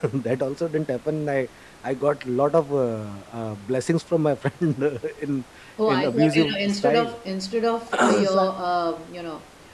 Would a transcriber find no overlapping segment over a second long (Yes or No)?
No